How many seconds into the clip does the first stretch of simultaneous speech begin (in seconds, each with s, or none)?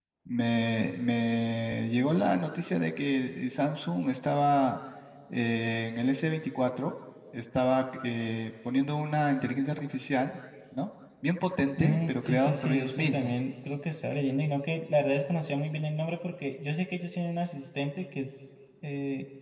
11.8 s